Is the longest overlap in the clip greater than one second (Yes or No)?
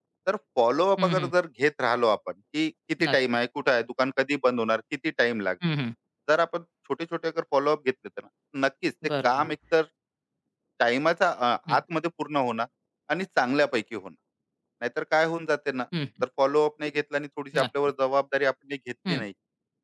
No